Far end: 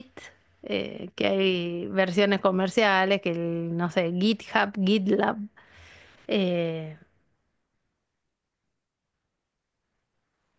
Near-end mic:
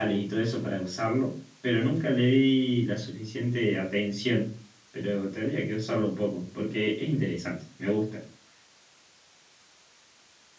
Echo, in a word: none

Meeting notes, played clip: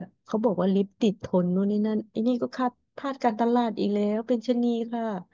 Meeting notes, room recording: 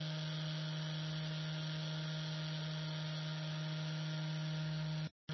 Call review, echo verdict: none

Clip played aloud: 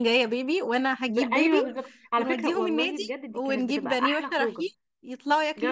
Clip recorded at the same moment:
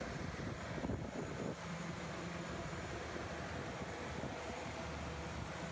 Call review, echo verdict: none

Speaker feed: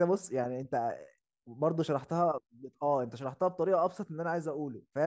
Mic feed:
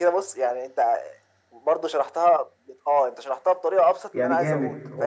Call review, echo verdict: present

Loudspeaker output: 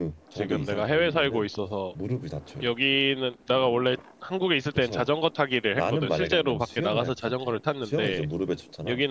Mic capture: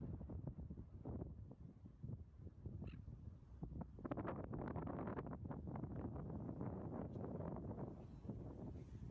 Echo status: none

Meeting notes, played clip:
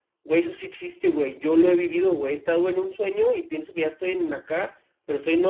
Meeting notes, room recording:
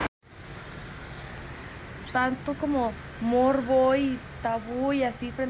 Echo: none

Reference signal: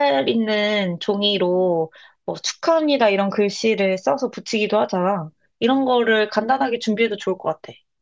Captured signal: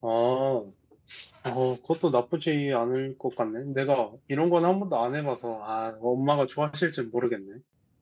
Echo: none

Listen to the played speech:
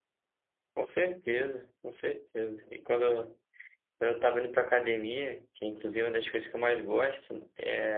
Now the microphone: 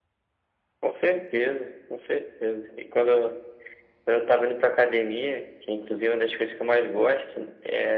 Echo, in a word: present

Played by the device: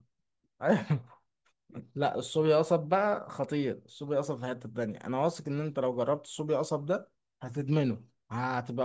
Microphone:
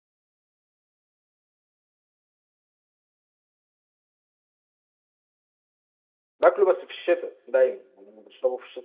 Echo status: none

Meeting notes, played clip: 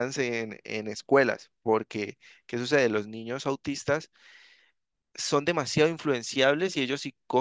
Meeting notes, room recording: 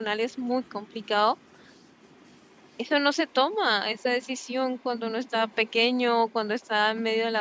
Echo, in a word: none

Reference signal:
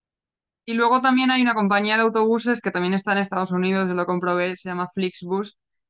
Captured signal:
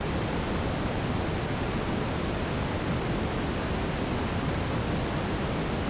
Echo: none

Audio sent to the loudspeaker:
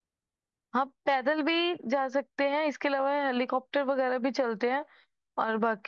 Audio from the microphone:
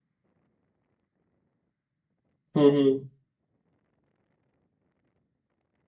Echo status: none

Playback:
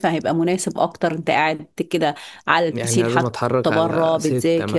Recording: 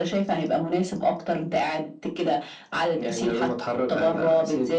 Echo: present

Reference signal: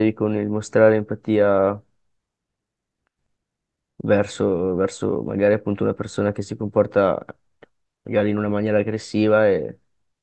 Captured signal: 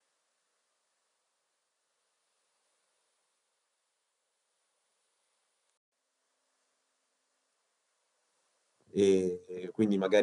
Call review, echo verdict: none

